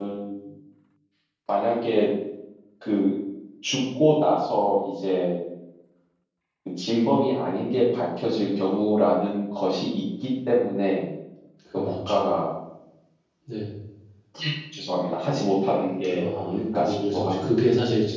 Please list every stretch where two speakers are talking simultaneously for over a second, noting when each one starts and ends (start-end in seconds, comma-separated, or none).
16.1-17.5